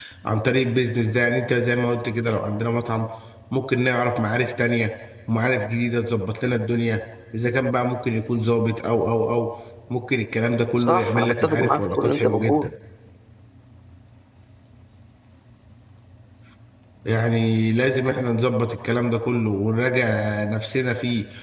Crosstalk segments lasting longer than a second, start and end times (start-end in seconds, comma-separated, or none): 10.8-12.7